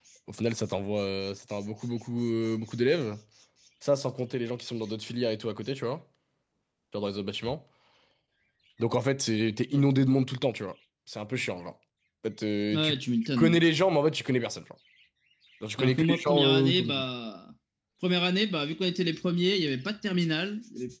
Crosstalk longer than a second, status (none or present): present